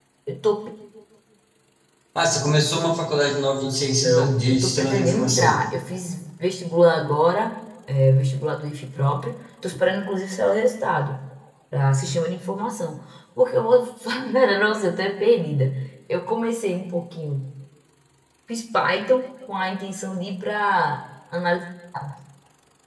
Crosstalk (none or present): present